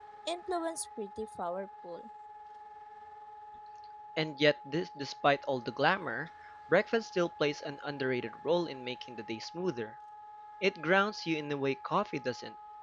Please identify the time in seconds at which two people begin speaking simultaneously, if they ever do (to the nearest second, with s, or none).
none